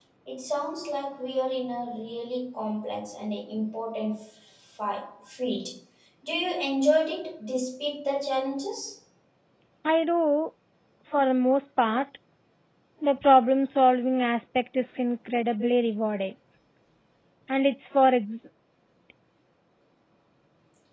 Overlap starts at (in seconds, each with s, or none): none